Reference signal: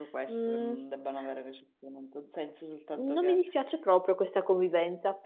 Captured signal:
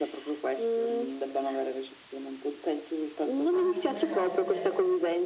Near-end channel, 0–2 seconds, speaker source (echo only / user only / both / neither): echo only